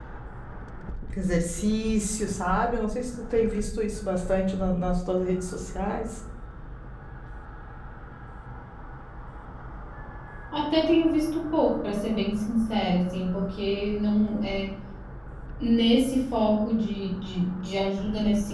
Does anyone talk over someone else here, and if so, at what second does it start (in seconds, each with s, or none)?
none